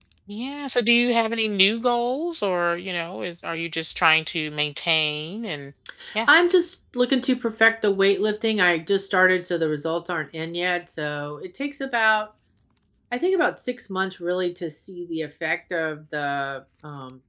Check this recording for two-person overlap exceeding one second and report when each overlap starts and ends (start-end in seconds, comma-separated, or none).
none